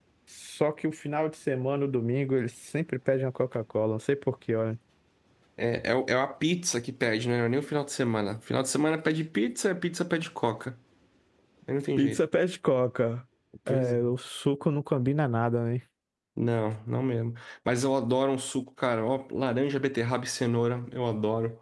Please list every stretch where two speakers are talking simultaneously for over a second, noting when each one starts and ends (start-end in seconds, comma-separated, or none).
none